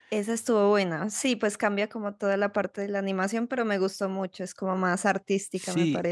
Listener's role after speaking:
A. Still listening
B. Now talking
B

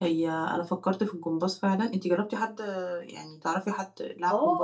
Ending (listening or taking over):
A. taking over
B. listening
A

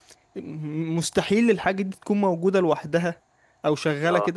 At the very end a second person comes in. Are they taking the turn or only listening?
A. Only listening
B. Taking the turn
A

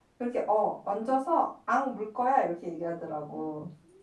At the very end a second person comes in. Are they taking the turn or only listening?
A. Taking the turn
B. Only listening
A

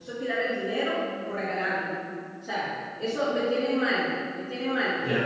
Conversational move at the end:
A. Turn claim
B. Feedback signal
A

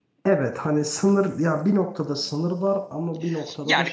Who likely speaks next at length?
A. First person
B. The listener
B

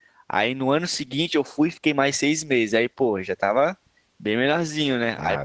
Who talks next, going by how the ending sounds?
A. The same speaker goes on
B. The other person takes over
A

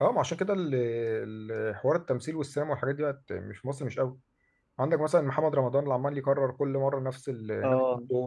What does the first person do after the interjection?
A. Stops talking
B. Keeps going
B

